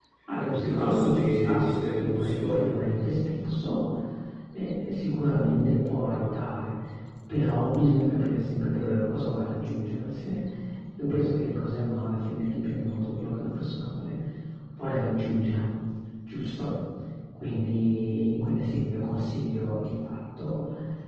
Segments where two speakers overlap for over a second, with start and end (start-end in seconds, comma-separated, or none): 0.5-2.9